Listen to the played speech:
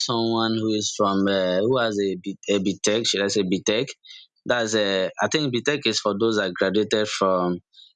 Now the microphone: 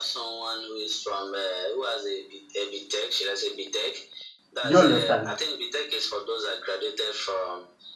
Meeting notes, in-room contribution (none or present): present